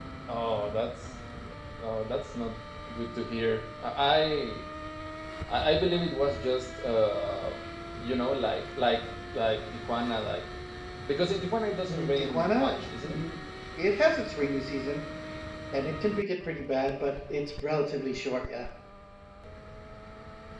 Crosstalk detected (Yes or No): Yes